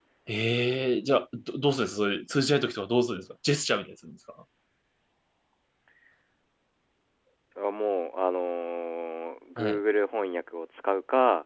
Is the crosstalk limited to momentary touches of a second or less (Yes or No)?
Yes